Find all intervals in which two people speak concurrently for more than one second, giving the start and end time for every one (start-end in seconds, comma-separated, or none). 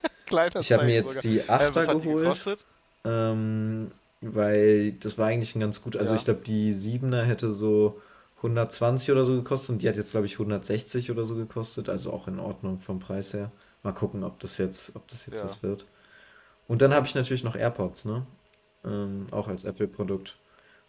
0.6-2.4